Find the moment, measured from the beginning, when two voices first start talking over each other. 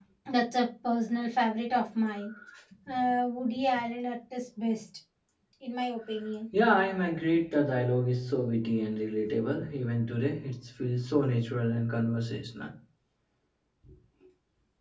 none

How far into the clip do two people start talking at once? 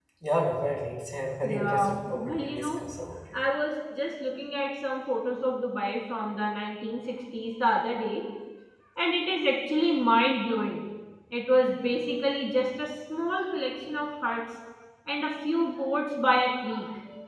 1.4 s

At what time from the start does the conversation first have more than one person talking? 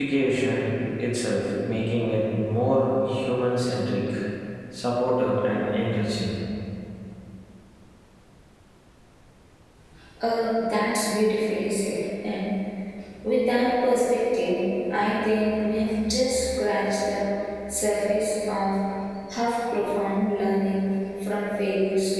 none

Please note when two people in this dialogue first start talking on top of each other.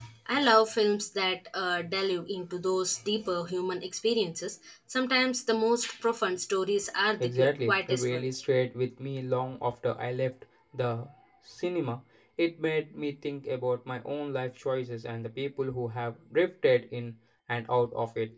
7.2 s

